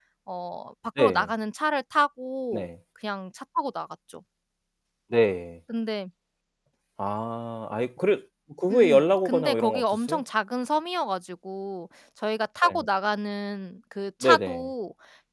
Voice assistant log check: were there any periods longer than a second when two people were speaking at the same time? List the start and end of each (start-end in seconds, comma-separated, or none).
8.7-10.2